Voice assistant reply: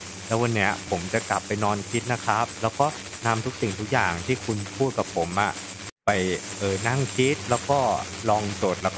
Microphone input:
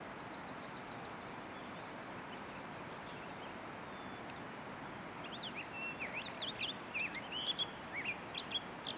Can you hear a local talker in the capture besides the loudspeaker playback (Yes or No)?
No